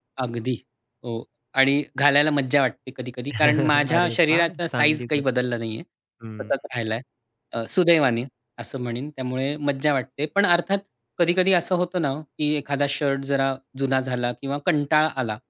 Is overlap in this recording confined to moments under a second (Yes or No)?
No